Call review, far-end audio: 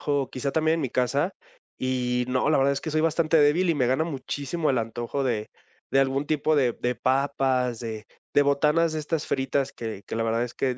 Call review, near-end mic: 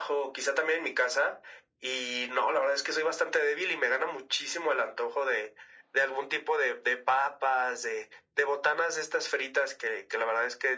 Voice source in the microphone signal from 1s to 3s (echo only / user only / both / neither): echo only